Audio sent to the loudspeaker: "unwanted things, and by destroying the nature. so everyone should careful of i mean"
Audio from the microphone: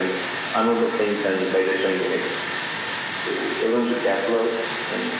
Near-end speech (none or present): none